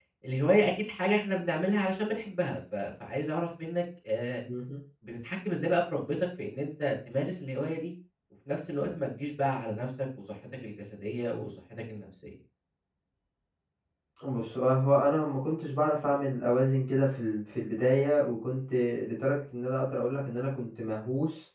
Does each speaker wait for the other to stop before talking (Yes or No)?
Yes